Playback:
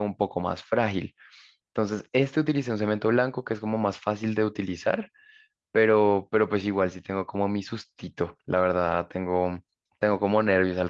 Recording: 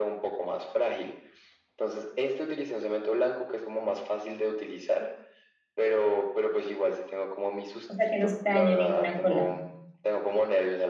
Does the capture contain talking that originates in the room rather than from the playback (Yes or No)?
Yes